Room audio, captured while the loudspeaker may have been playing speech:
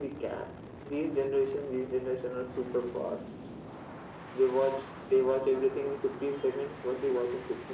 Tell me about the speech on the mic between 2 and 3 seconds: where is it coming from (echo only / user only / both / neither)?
echo only